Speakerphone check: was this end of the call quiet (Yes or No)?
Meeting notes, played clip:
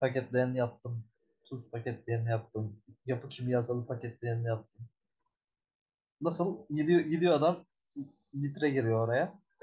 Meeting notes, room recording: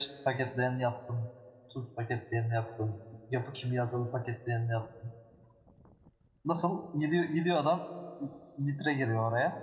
Yes